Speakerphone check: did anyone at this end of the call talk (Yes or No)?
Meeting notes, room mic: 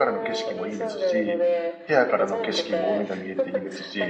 Yes